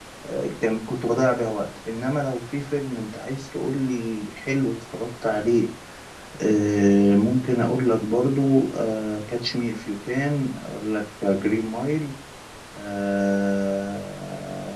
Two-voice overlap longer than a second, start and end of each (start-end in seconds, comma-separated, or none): none